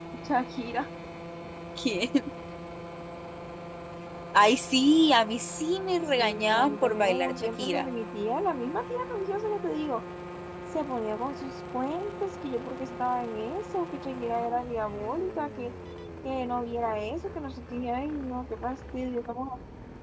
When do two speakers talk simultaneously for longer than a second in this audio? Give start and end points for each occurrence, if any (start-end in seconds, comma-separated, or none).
6.2-7.9